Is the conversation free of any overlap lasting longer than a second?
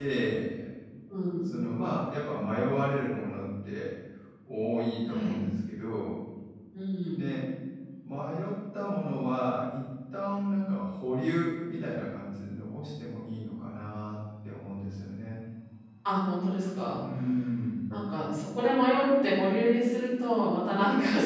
Yes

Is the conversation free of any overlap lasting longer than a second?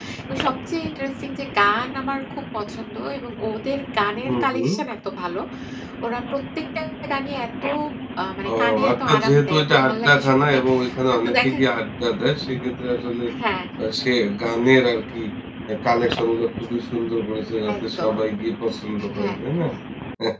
No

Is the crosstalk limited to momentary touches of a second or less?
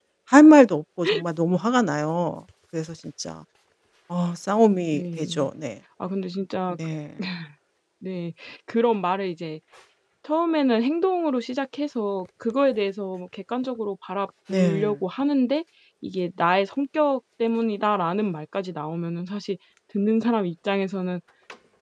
Yes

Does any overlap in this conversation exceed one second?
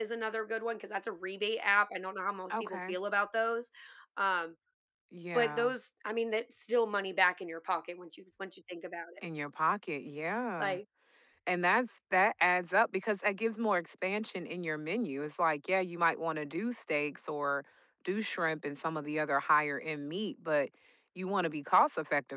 No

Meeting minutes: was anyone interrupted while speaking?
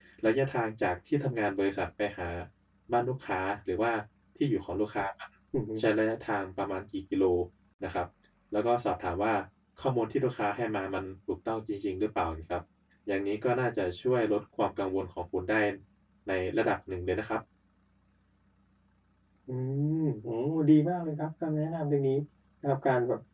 No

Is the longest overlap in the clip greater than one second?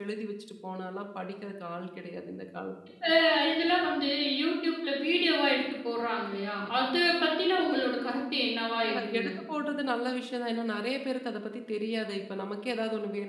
No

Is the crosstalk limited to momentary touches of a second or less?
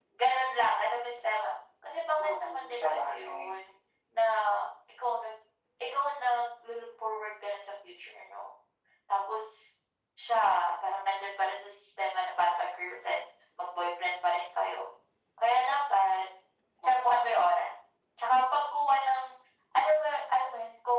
No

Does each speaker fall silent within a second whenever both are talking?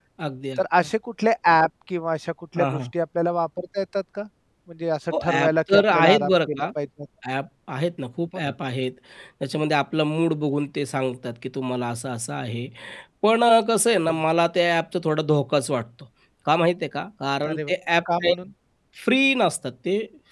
No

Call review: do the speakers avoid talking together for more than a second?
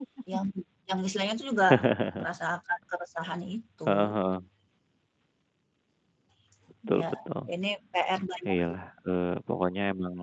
Yes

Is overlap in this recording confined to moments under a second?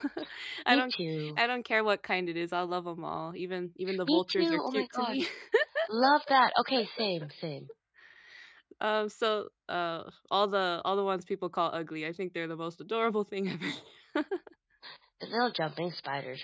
No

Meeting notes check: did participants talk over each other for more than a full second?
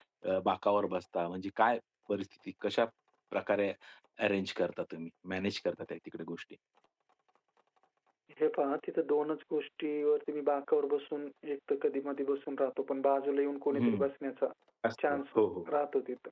No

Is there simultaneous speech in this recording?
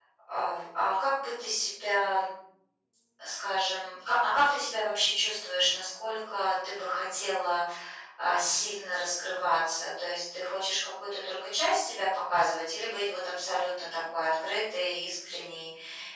No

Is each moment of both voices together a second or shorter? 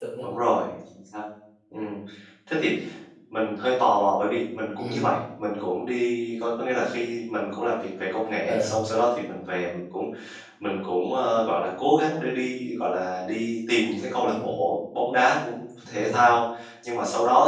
Yes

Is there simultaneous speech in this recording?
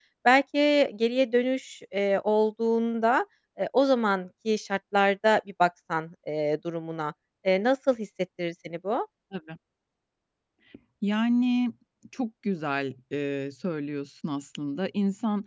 No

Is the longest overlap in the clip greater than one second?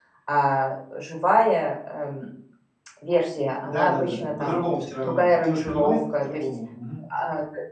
Yes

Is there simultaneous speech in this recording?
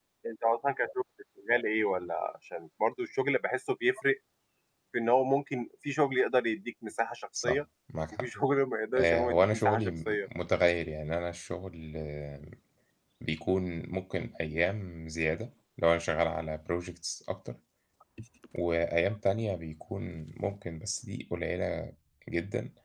Yes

